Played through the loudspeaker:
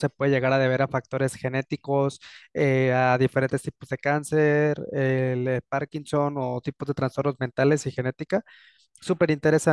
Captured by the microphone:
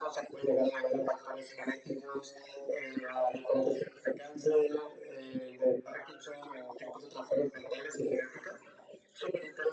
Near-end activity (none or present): none